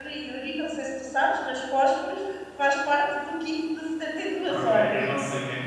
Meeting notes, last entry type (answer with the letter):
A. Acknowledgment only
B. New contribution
B